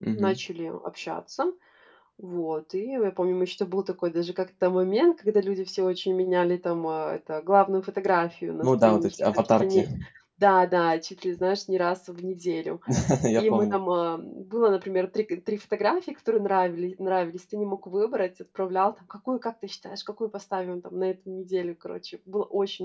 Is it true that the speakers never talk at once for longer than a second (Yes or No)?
No